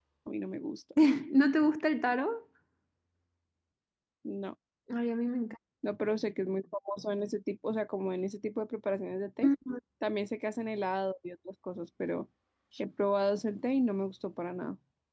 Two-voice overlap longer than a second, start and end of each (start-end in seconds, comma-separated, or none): none